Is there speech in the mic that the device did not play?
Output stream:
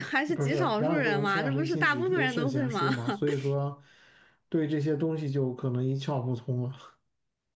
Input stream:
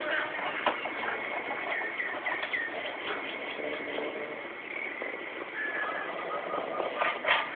No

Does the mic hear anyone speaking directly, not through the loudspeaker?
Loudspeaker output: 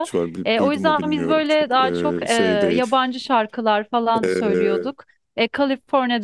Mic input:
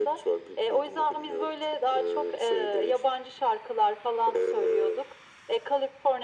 No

